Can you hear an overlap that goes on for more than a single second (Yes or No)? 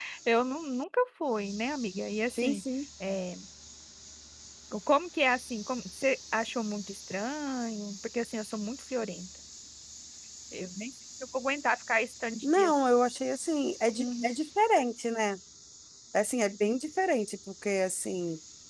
No